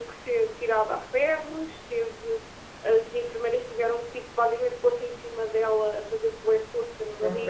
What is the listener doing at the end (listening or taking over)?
listening